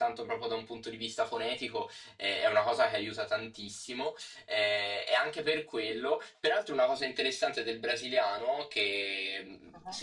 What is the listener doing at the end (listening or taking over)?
listening